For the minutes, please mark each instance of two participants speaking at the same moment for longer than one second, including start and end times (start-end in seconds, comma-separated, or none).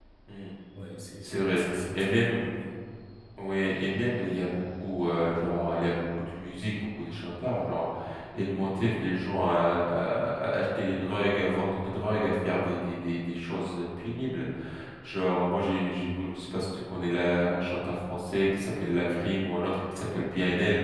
1.2-2.4